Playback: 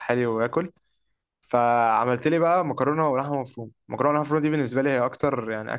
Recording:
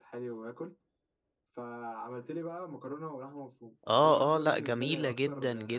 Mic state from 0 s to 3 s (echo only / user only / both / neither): echo only